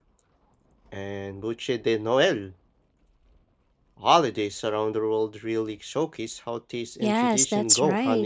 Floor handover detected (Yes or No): Yes